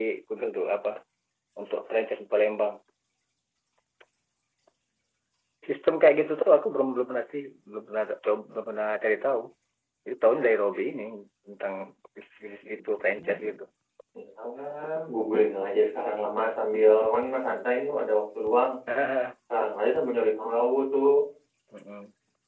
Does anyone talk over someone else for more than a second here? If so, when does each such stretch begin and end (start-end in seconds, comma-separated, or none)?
none